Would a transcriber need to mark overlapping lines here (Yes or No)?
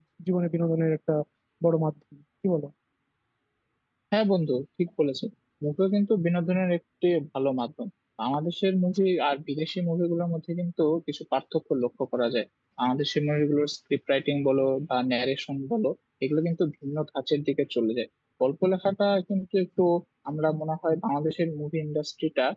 No